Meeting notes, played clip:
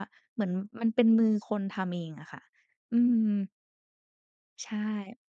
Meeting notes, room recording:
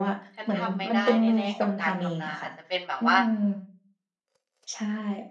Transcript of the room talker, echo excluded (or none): ฉันทำไม่ได้แน่ ๆ กับการทำนา อาจจะเป็นแบบว่า